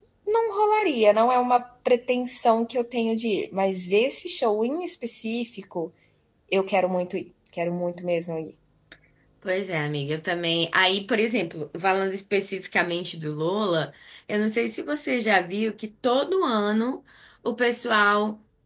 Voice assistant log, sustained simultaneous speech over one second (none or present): none